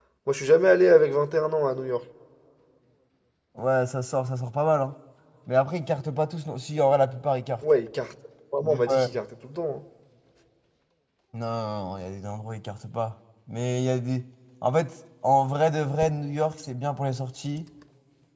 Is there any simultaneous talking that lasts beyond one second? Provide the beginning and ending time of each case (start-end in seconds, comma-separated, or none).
none